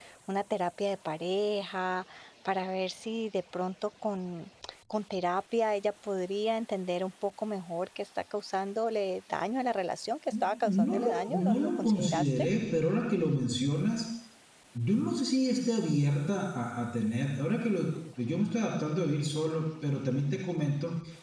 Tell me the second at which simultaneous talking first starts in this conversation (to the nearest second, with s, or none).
11 s